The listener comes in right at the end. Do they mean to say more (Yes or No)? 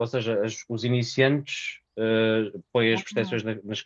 No